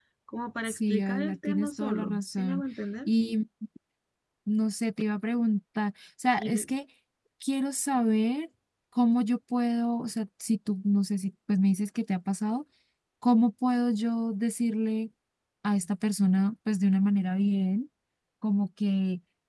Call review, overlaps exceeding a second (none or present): present